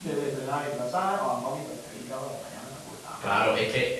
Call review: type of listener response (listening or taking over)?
taking over